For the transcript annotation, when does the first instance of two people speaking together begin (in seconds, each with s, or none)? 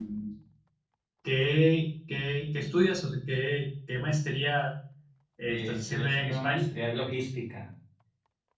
5.5 s